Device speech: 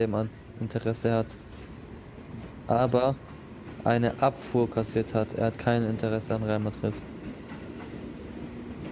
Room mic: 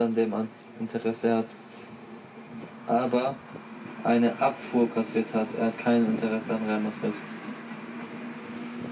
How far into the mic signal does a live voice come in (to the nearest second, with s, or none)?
none